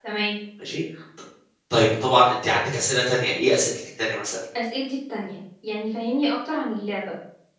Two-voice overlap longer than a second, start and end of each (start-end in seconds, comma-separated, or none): none